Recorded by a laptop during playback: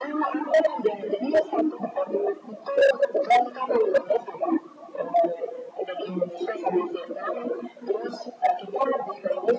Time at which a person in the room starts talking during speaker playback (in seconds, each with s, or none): none